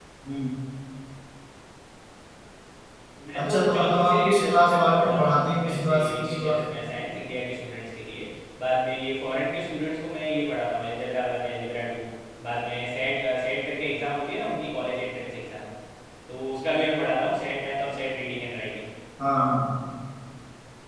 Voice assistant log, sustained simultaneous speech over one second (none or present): present